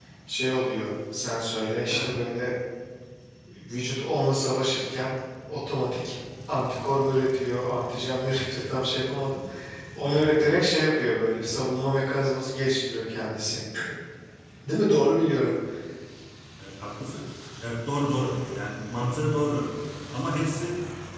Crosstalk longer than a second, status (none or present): none